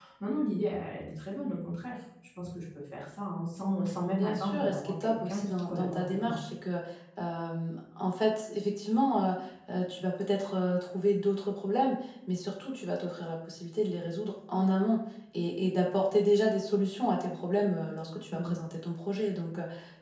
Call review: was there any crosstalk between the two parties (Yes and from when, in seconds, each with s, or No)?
Yes, from 4.2 s